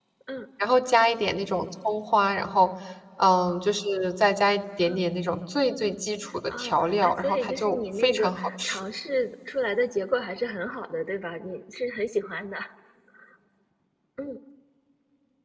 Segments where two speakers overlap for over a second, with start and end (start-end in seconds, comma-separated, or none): 6.5-8.8